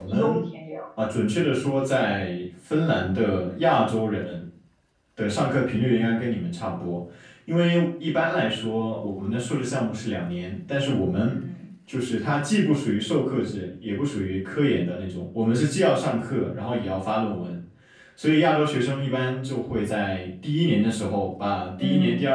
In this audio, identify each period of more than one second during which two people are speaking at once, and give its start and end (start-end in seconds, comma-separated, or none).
none